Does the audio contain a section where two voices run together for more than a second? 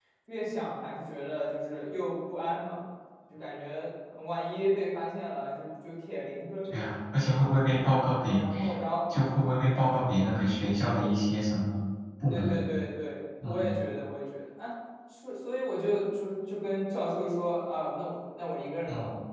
No

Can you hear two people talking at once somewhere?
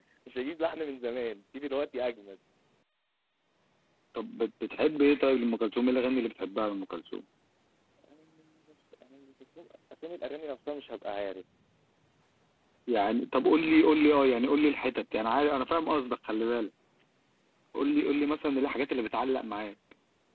No

